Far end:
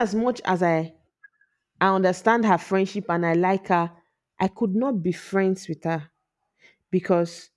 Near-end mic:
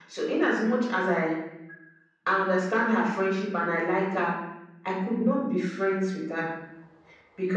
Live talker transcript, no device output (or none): none